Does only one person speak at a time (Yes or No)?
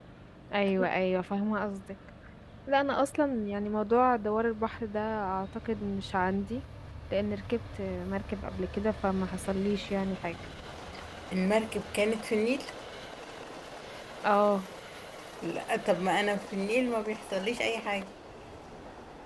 Yes